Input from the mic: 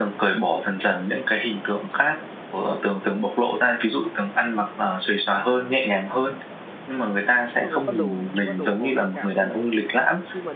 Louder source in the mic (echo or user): echo